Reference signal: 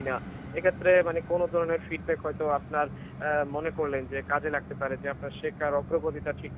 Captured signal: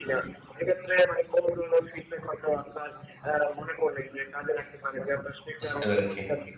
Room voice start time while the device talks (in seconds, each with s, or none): 5.6 s